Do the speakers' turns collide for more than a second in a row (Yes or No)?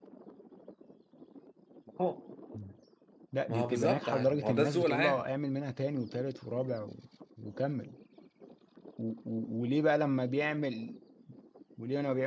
Yes